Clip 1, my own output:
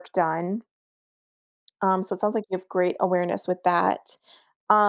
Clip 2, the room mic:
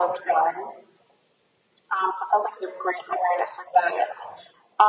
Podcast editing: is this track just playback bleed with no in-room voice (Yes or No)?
Yes